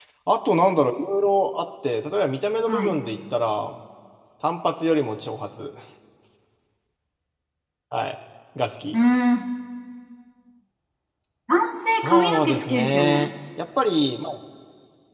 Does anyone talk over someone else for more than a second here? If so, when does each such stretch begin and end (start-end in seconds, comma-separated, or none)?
12.0-13.3